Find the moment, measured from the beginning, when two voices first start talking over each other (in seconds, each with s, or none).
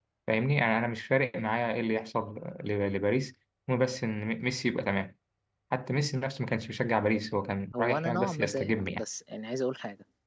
7.7 s